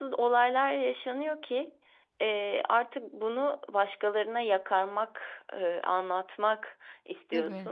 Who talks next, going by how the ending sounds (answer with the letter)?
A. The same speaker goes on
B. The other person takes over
A